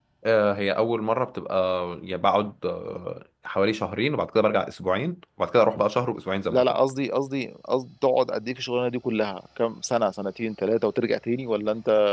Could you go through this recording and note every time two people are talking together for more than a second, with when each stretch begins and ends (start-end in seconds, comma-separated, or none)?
none